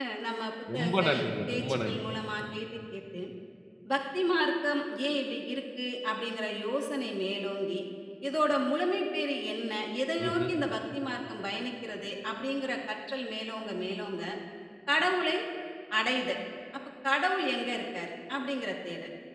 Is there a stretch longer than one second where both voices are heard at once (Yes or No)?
Yes